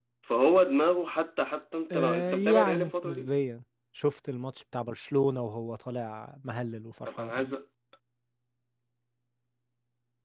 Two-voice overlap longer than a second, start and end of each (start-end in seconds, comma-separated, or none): 1.9-3.3